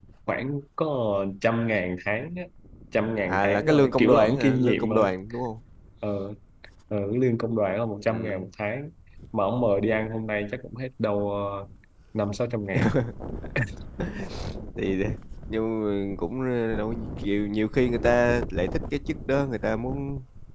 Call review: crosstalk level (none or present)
present